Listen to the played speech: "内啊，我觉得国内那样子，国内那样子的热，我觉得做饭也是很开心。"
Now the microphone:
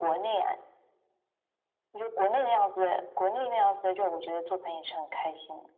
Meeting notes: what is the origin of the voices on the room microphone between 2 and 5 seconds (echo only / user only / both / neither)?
echo only